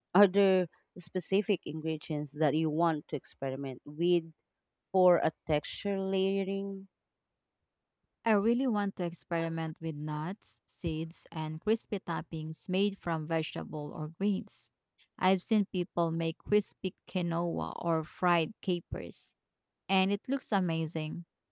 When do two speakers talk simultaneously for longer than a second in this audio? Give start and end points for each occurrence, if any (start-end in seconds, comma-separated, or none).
none